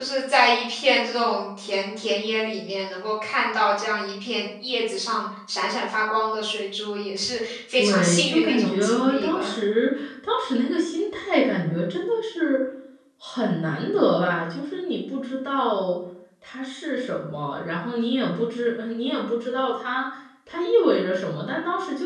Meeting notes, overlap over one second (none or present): present